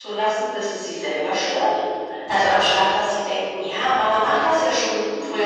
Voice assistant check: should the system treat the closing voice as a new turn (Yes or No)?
No